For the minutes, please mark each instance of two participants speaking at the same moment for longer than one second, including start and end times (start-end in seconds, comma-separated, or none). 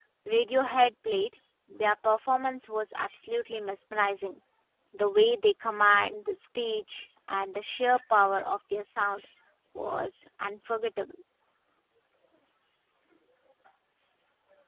none